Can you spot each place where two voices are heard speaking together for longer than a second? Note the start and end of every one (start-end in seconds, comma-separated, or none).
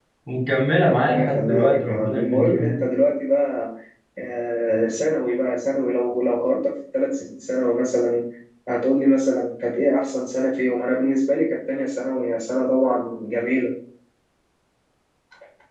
0.9-2.9